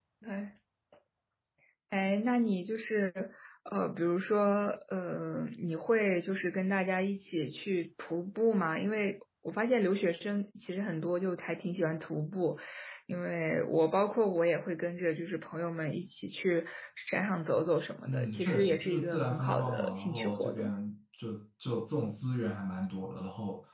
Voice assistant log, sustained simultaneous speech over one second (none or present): present